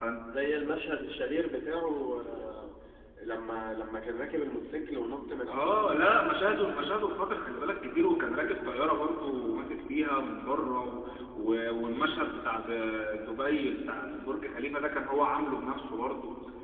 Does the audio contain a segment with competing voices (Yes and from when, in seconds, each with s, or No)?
Yes, from 5.5 s